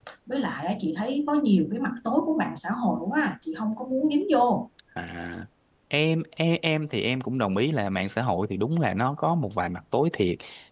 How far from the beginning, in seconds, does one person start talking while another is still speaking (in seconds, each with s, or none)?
none